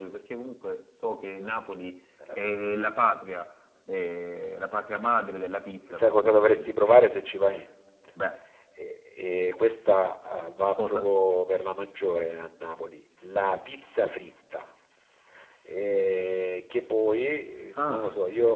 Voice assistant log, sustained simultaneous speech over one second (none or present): present